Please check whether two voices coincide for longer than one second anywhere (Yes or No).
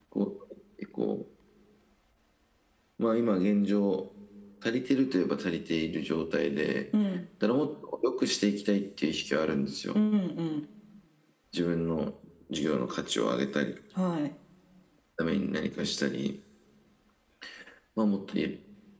No